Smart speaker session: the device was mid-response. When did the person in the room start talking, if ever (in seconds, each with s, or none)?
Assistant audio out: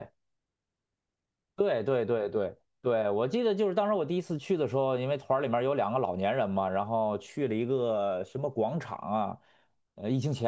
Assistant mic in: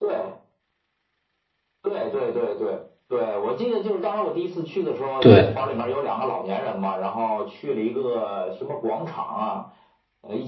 5.2 s